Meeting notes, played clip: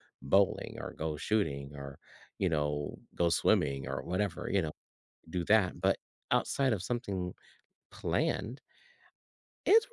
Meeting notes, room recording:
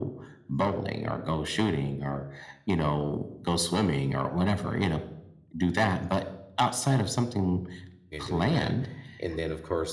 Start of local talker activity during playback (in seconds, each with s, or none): 8.1 s